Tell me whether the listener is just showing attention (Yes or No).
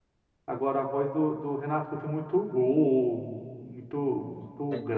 Yes